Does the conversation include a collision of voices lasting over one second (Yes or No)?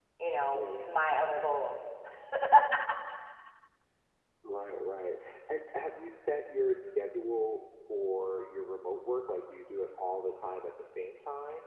No